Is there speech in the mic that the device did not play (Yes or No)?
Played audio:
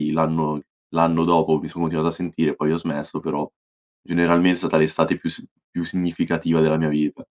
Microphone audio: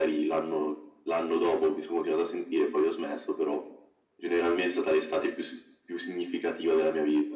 No